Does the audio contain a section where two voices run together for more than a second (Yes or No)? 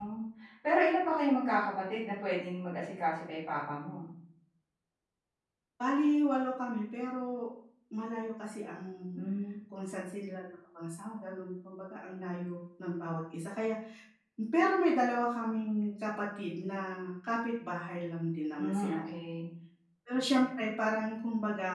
No